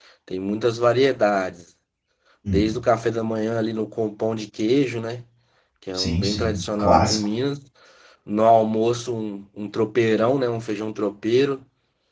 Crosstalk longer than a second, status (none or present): present